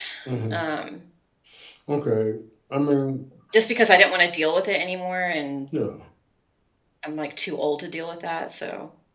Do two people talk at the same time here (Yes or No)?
No